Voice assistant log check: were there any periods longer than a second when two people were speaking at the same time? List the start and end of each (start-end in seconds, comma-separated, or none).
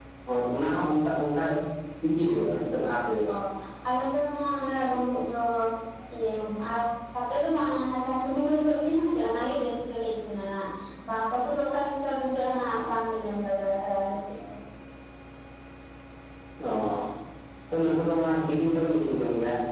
none